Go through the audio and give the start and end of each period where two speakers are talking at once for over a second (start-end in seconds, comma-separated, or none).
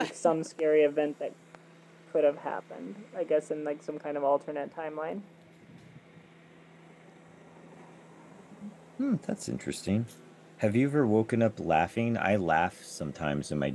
none